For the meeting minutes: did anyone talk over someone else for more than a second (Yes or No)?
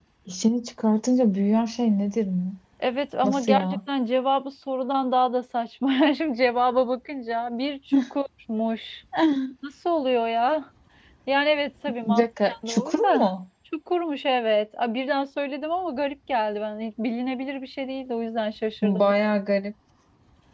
Yes